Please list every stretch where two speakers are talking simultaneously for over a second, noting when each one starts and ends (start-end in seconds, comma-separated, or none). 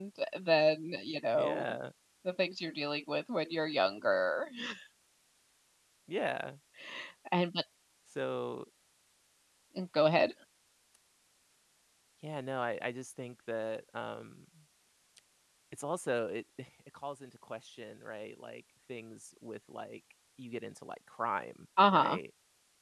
none